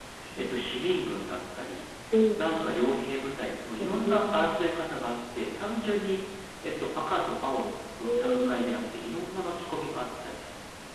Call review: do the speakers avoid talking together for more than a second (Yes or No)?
Yes